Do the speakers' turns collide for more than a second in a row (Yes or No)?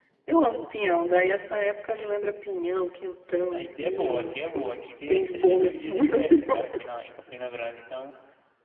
Yes